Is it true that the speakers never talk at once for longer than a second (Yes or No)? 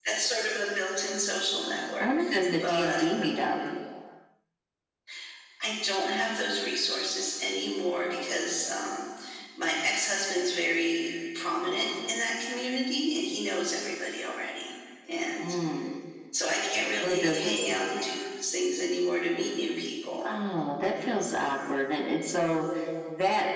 Yes